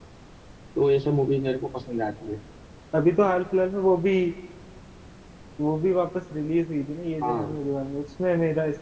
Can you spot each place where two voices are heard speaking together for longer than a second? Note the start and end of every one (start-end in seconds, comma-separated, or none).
none